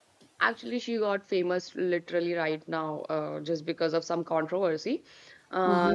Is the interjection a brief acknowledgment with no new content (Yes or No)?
No